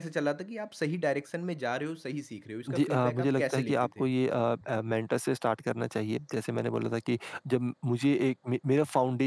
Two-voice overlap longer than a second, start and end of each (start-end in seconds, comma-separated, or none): 2.7-4.1